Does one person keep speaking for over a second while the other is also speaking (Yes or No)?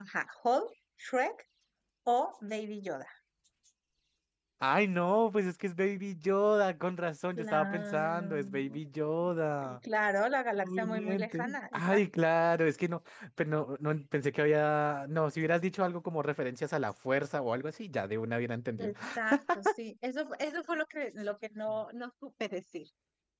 Yes